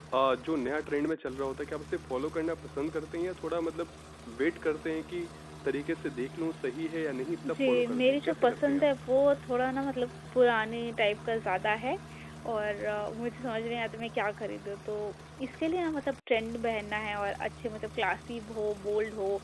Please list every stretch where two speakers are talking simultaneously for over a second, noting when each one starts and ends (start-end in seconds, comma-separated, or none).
7.5-8.8